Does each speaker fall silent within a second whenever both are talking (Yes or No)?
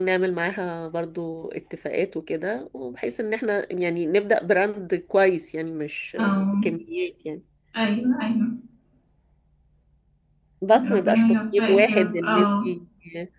No